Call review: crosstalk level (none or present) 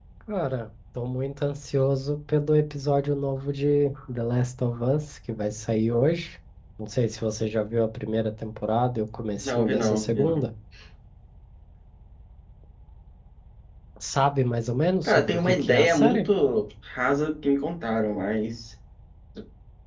present